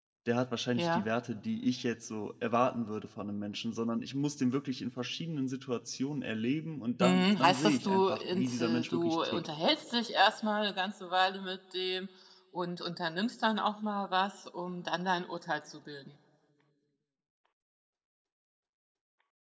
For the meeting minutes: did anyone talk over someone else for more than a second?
Yes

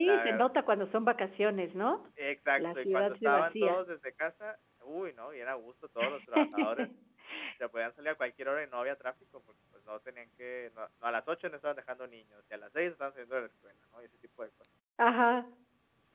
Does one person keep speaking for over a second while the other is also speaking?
Yes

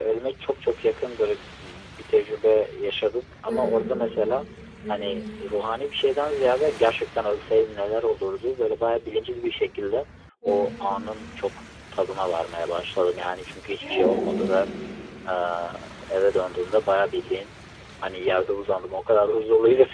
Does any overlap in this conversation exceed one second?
No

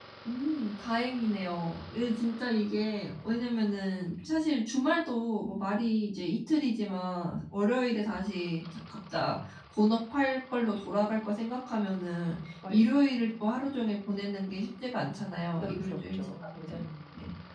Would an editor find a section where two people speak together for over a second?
Yes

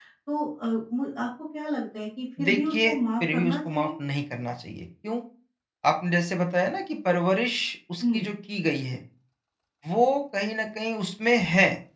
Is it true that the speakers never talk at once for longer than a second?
No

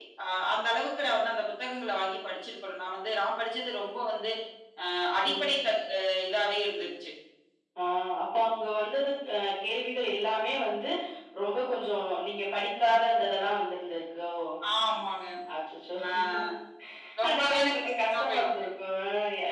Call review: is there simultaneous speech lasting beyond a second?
Yes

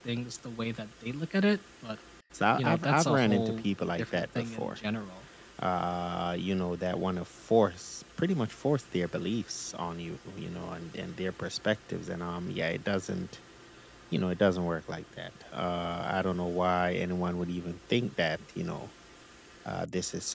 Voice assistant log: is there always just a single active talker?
No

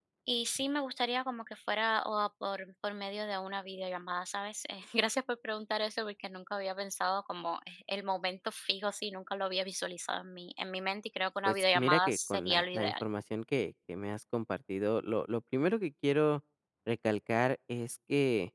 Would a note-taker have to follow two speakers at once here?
Yes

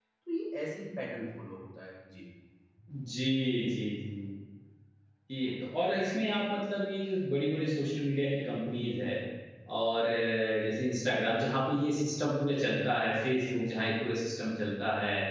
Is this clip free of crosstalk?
Yes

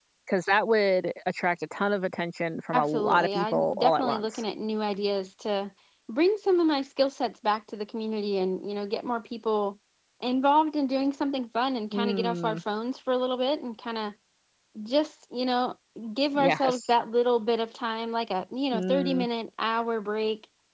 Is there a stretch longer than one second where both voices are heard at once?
Yes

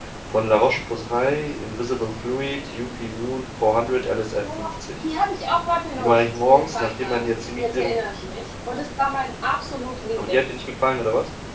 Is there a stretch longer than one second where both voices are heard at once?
Yes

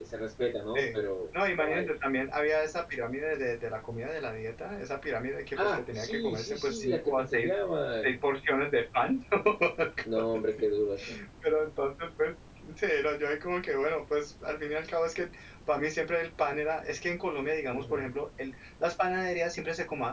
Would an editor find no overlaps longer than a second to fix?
No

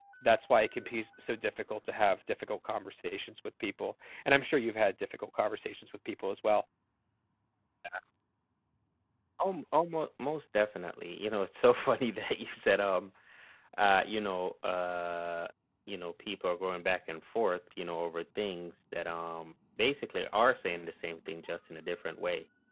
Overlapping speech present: No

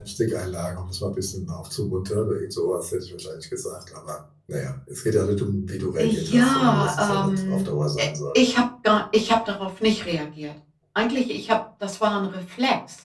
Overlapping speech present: Yes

